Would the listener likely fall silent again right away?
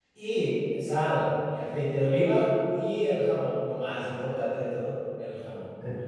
No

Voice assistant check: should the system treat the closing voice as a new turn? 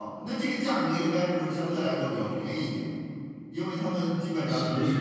No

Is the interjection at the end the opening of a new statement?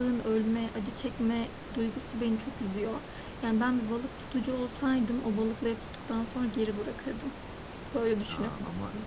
Yes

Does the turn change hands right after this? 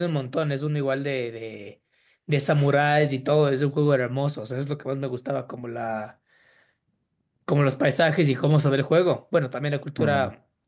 No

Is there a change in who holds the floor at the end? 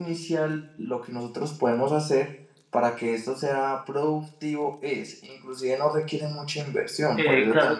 Yes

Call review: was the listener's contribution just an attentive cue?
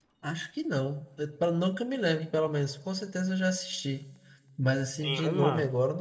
No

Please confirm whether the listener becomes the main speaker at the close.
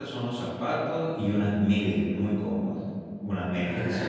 No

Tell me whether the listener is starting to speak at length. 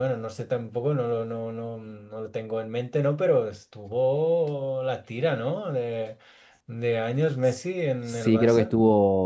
Yes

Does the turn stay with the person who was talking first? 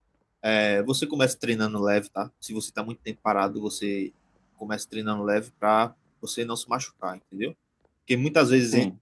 Yes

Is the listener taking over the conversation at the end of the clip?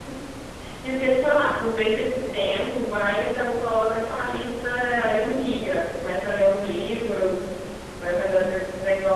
No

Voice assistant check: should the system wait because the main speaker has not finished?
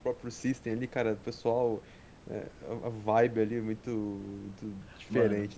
No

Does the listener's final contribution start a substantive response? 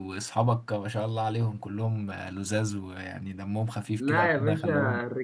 Yes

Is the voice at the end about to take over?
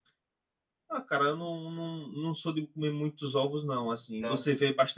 No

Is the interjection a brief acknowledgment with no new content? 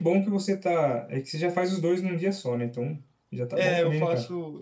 No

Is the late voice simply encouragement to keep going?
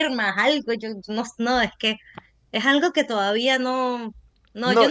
No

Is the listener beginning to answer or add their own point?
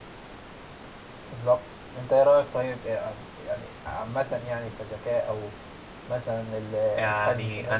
Yes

